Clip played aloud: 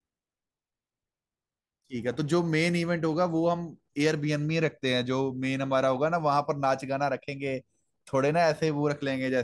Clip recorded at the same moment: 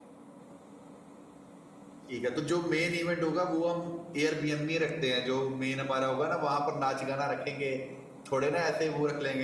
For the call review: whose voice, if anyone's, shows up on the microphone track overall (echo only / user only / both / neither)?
echo only